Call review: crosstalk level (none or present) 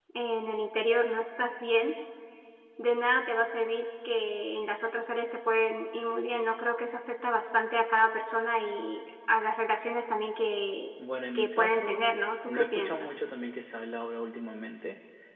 present